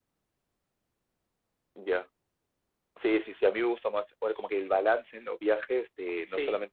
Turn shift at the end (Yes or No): No